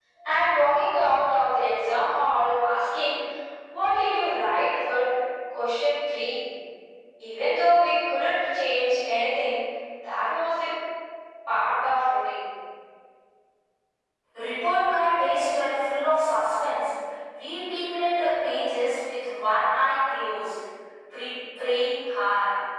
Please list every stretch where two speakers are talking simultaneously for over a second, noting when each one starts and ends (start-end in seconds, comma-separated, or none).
none